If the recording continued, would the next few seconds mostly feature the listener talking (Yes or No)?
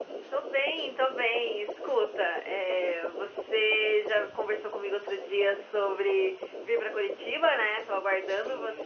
No